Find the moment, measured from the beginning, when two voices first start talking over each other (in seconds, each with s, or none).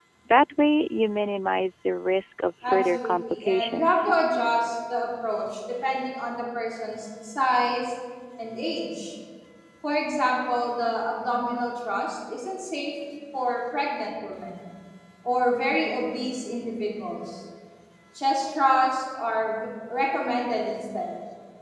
2.6 s